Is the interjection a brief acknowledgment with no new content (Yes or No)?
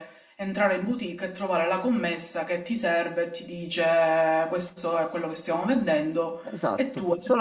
No